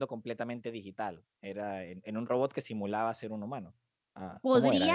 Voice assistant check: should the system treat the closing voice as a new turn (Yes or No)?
Yes